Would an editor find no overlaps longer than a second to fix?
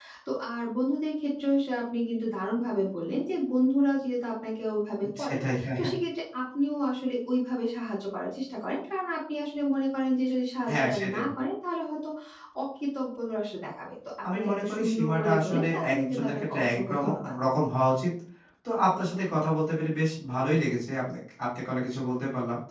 No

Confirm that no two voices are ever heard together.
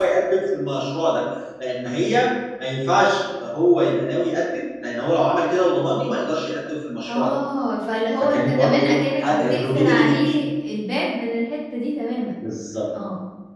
No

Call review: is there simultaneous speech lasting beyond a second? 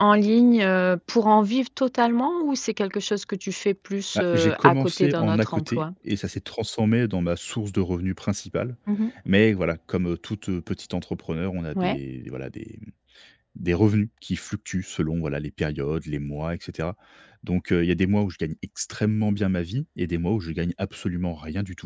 Yes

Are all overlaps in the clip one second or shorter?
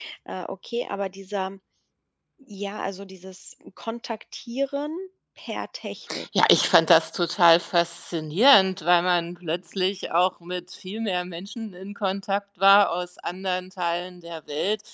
Yes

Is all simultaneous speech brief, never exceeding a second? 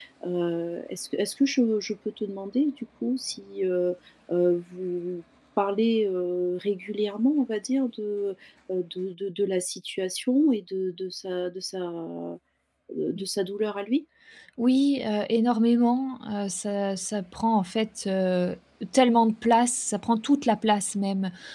Yes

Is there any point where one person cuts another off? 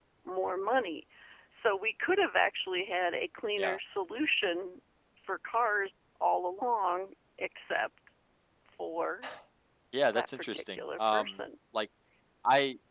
Yes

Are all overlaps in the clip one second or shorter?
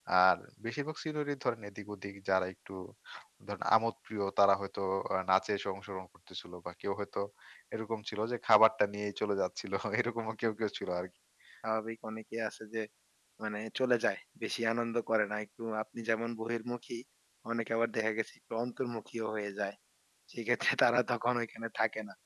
Yes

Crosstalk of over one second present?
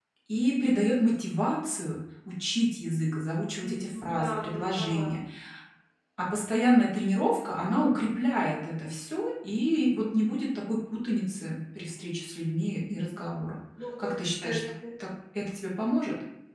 Yes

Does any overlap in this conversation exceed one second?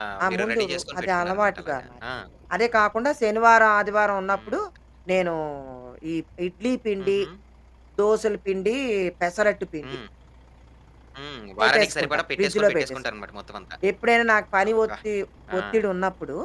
Yes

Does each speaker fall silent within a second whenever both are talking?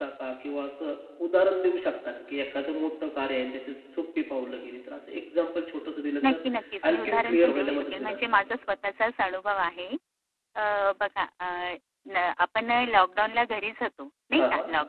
No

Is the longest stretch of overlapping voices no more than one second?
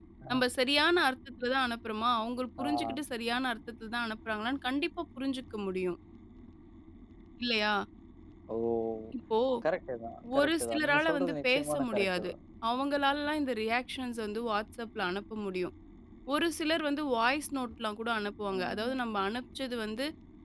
No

